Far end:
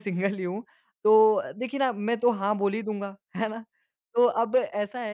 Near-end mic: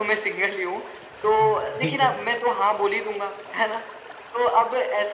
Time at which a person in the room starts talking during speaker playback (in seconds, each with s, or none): 1.4 s